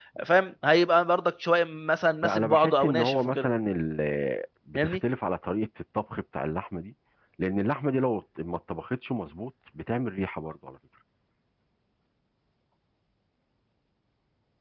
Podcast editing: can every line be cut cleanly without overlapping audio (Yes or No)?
No